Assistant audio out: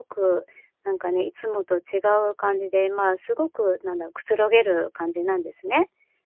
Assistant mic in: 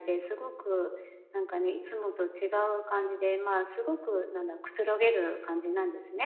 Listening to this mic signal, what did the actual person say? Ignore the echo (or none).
none